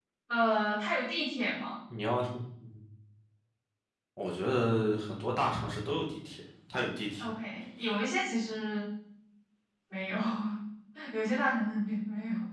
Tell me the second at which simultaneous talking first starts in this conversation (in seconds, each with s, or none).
none